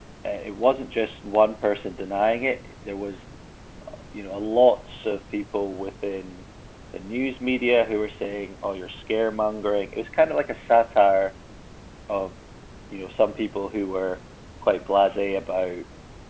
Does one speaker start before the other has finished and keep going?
No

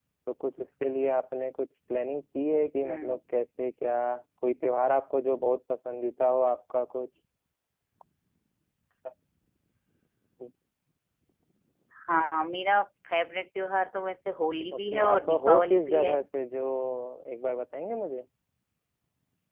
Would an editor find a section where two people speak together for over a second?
Yes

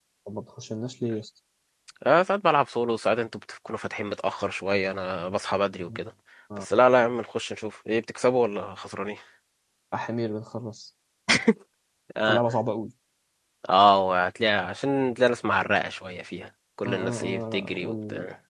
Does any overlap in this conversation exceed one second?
Yes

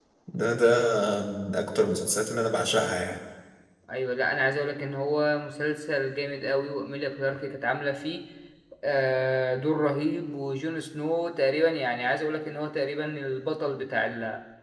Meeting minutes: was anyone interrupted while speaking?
No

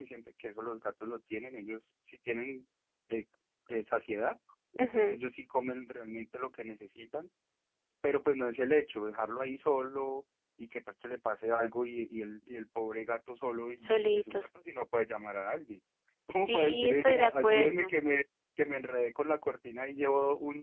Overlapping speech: Yes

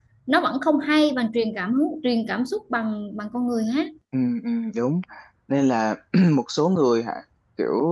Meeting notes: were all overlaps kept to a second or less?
Yes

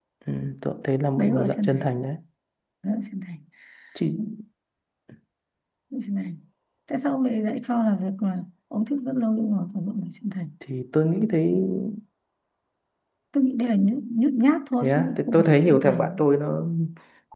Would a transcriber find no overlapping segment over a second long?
No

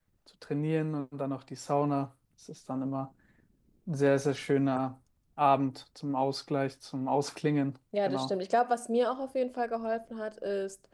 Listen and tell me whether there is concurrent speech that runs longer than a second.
No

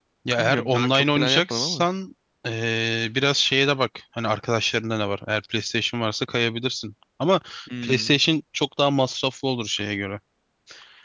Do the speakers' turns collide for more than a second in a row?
Yes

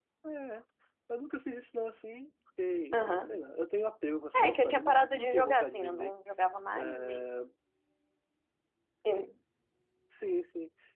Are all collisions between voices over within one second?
No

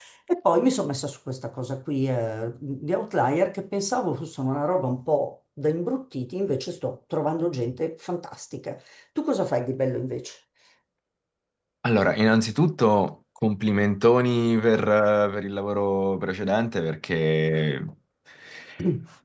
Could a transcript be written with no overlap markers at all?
Yes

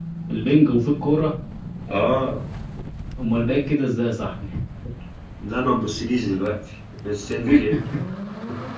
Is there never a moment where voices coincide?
Yes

